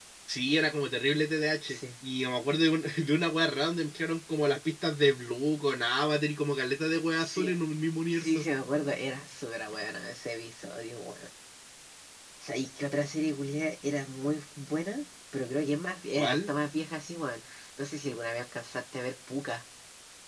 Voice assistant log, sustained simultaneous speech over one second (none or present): none